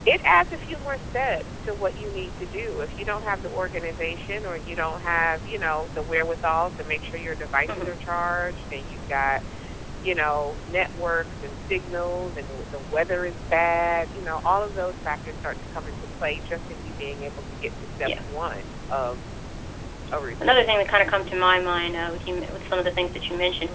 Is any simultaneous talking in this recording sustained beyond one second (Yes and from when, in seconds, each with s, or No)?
No